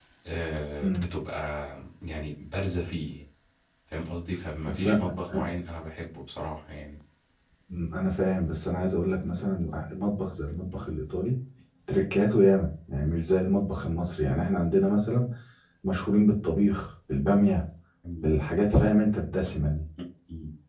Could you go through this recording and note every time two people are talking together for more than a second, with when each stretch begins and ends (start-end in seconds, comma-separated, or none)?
none